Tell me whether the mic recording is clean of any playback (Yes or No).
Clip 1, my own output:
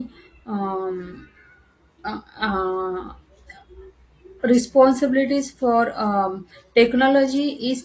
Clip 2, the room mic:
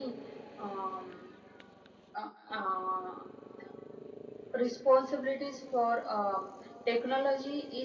No